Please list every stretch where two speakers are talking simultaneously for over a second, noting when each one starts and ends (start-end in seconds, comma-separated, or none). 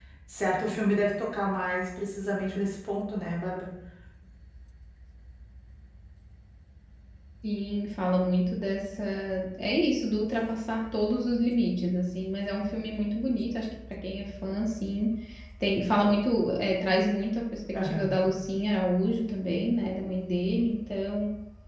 none